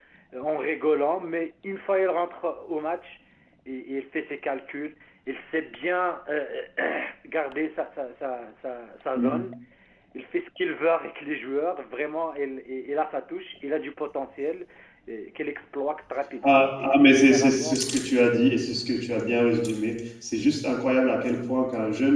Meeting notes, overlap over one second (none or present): present